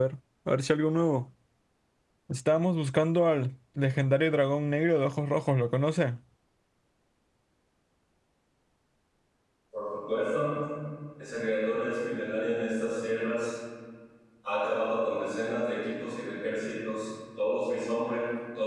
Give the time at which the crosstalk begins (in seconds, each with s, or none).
none